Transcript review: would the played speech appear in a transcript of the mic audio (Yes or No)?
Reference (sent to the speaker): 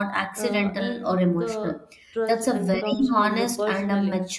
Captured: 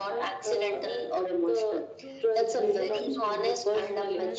Yes